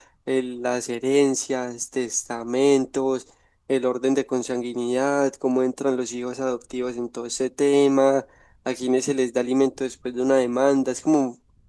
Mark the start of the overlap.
none

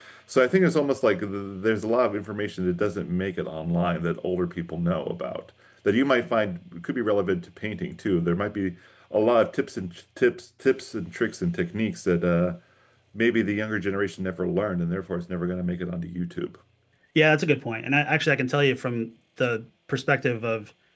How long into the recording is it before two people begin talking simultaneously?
none

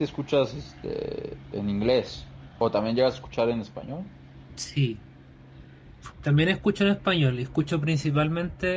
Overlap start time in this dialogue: none

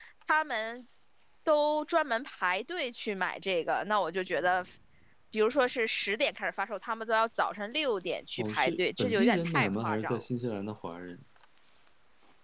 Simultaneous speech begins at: 8.4 s

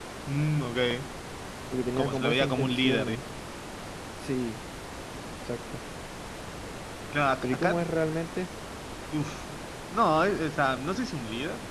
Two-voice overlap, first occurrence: 2.0 s

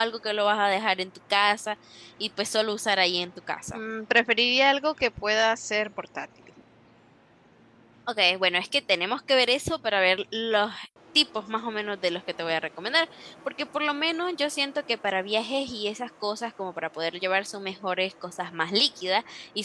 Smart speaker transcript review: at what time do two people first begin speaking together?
none

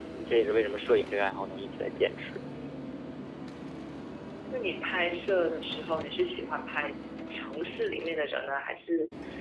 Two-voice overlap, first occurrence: none

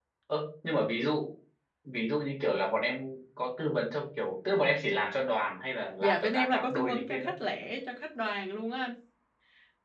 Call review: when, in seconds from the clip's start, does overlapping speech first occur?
6.0 s

